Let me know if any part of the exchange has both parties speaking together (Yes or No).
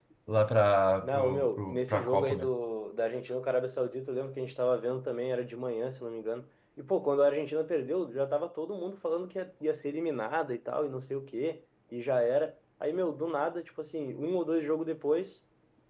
Yes